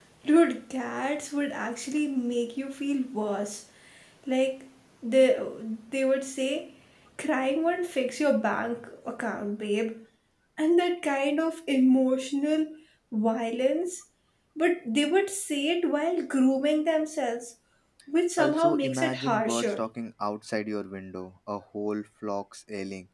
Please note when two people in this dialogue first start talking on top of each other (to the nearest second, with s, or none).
18 s